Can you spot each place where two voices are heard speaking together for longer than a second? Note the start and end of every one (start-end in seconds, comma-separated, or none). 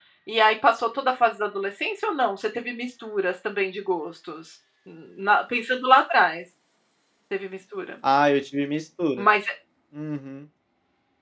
none